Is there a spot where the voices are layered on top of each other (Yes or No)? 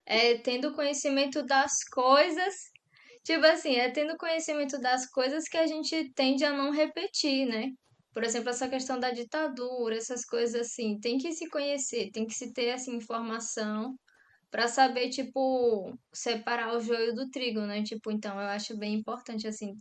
No